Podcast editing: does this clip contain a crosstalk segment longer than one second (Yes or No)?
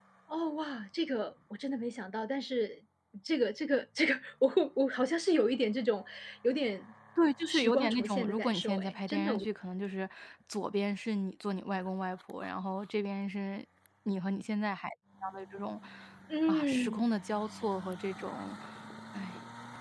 Yes